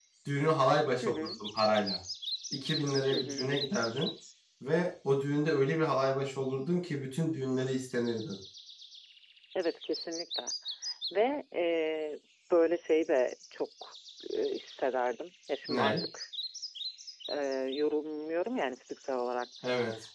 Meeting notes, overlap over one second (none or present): none